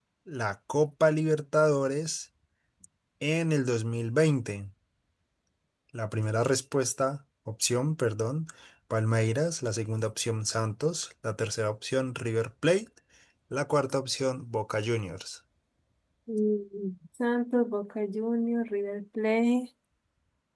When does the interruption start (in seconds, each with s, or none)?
none